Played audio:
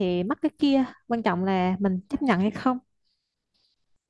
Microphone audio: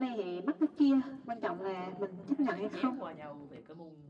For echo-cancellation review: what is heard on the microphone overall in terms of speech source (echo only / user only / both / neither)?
both